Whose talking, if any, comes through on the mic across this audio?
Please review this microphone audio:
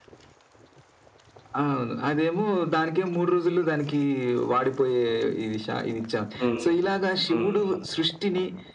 both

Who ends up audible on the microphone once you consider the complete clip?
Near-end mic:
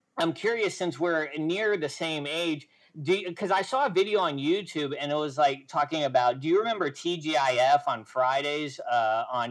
echo only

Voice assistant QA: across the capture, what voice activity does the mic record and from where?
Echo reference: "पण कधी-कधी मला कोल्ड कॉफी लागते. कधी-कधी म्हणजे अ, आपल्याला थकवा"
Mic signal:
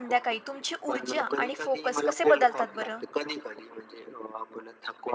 both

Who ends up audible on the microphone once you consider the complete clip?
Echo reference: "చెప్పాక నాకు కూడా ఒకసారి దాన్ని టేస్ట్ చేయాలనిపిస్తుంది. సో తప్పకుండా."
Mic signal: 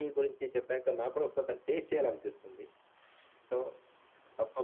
echo only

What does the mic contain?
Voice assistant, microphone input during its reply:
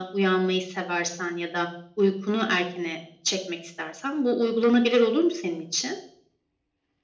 echo only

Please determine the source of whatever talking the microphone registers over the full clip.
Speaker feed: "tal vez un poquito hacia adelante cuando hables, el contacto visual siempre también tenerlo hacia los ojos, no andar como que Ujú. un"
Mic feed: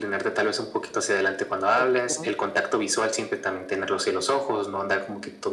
both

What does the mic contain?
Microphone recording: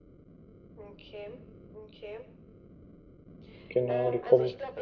both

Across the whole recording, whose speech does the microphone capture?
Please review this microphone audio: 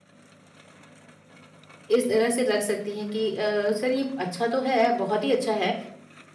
user only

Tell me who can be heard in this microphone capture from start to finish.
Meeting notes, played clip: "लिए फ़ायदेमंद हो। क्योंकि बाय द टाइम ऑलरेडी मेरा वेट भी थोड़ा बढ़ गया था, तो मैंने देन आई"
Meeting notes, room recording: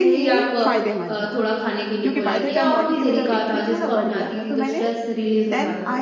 both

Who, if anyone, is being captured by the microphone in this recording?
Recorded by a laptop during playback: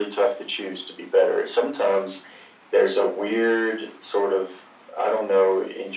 echo only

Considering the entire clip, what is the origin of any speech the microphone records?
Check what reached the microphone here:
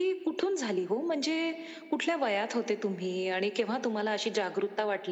echo only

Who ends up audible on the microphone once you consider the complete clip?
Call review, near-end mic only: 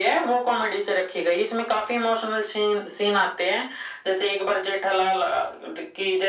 echo only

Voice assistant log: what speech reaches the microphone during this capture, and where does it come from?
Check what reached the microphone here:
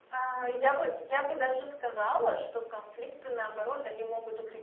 echo only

